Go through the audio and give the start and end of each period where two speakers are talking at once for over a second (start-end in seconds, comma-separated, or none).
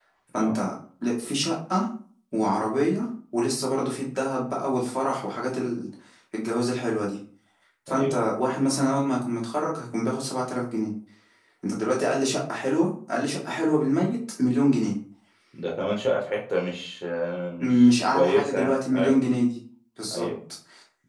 17.9-19.2